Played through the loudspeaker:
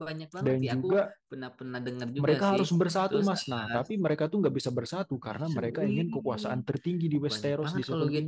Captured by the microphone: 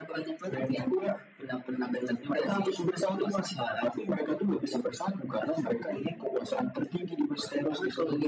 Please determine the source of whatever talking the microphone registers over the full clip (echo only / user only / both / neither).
echo only